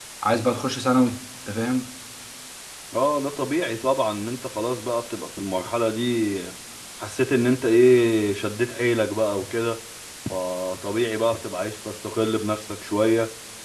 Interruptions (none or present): none